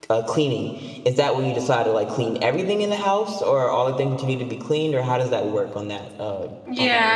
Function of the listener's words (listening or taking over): taking over